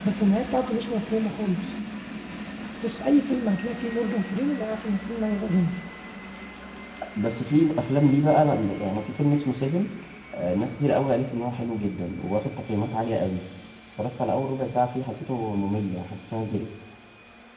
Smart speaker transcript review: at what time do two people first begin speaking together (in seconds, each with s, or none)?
none